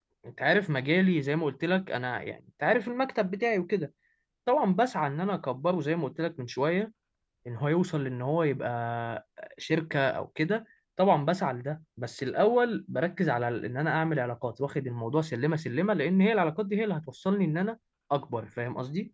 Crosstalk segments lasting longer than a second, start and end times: none

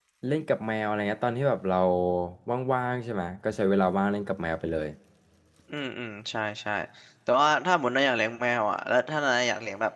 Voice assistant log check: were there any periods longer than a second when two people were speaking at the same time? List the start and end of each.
none

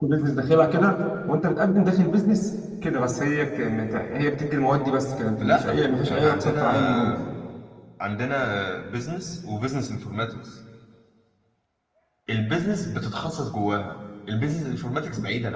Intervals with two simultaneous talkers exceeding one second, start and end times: 5.4-7.2

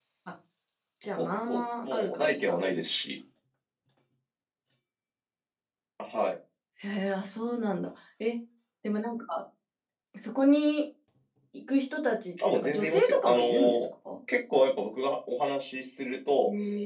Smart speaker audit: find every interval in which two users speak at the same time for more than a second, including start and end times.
1.1-2.6, 12.5-13.8

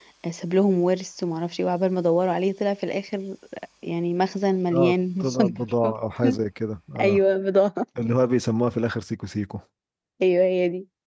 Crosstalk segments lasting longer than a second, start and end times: 4.7-5.9

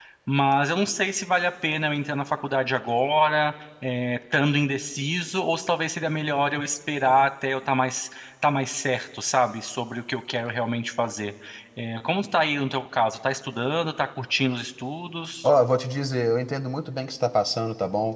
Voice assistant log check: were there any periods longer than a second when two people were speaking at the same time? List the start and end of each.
none

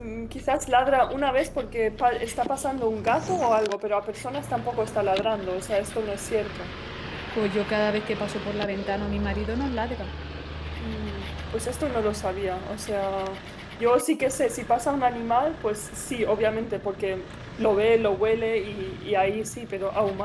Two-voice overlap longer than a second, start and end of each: none

